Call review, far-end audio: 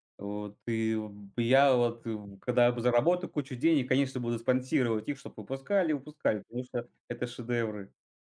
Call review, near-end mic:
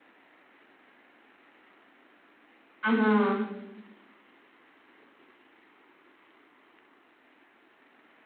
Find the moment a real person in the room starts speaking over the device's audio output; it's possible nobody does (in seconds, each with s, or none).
2.9 s